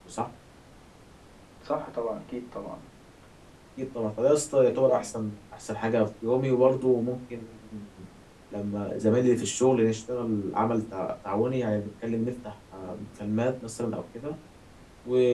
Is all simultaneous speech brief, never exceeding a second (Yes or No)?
Yes